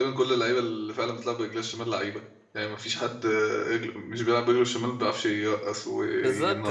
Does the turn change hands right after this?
Yes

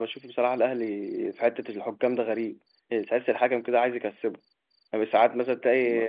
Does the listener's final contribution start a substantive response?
No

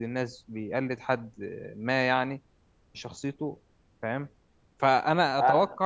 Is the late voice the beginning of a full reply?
No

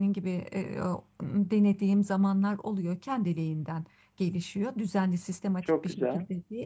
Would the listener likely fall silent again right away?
Yes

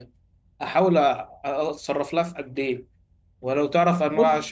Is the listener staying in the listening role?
Yes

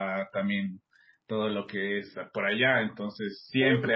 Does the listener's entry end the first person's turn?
No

